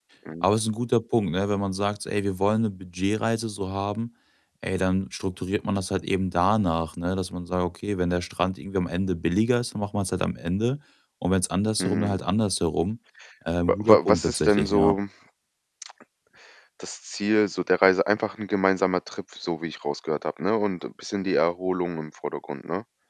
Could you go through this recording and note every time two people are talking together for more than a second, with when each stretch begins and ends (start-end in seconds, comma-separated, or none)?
13.7-15.0